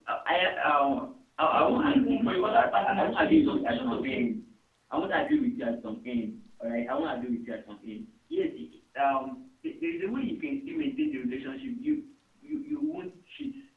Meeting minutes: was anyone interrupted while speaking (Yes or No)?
Yes